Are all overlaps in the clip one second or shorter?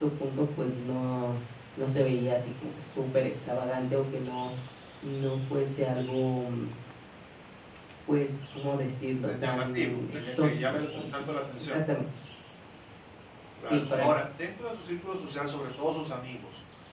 No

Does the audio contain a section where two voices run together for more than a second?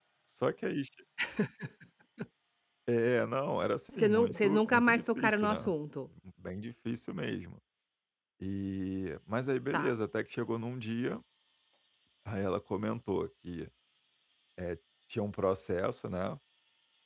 Yes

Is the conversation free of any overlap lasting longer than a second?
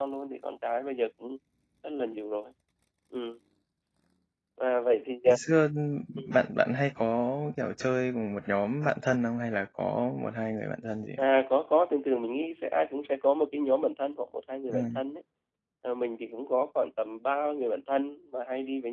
Yes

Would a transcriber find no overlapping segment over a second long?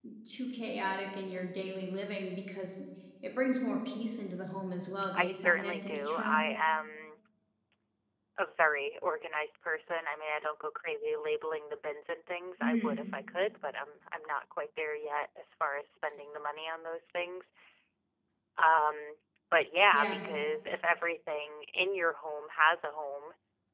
No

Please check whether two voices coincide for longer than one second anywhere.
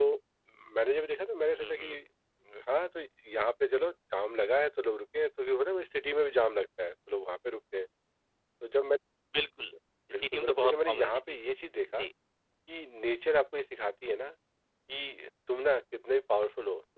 Yes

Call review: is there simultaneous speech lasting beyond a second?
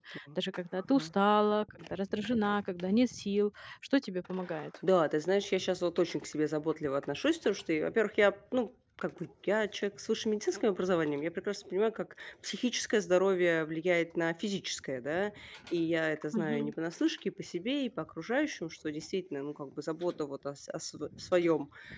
No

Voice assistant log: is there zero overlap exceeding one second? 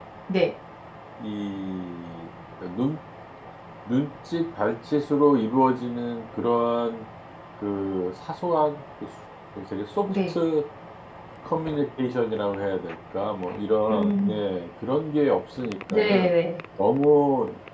Yes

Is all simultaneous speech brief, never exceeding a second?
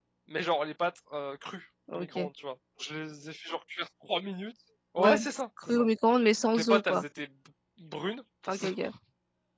Yes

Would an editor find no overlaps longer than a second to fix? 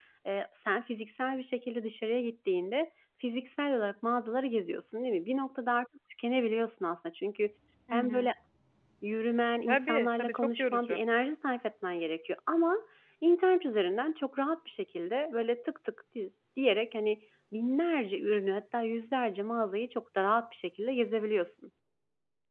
No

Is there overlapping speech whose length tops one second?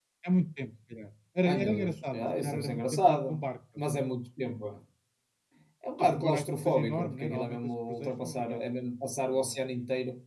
Yes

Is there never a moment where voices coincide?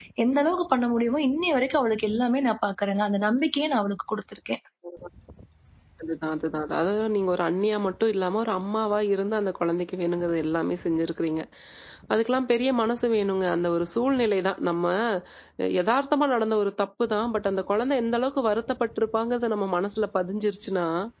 Yes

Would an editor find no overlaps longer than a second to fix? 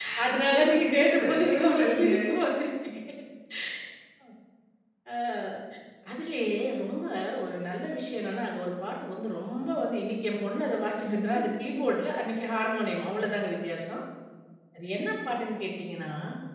No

